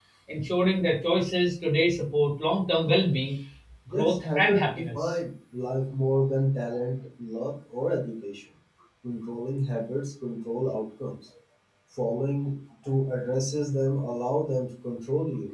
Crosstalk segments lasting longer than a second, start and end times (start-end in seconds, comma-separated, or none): 3.9-5.2